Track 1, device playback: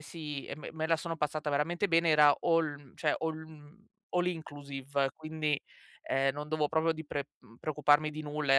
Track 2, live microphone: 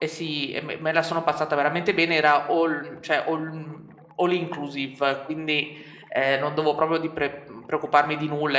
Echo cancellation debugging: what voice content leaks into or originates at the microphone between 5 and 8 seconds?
echo only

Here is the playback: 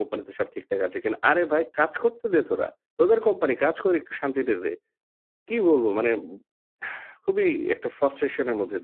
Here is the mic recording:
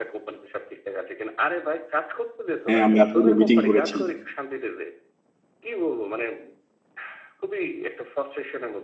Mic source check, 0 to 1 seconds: echo only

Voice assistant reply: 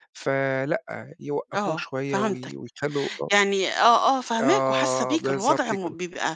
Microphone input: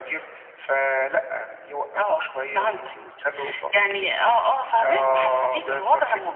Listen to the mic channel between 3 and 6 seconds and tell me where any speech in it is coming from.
echo only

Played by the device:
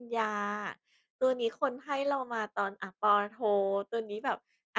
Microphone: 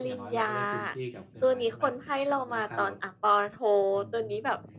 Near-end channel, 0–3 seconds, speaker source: both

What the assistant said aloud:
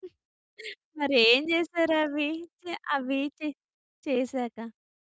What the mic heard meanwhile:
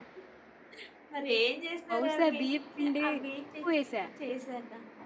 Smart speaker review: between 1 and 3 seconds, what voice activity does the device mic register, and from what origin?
both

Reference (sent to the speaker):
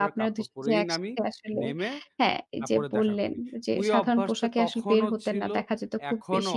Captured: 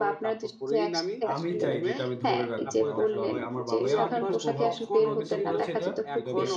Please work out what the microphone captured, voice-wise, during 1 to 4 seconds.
both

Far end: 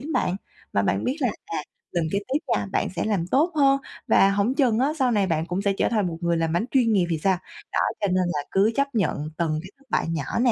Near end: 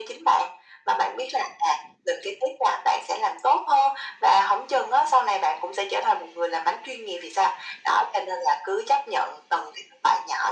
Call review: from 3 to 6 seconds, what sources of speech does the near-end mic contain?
echo only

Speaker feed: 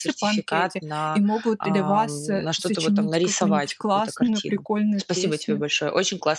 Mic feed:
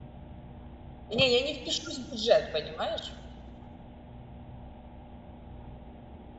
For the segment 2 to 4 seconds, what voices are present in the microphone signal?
user only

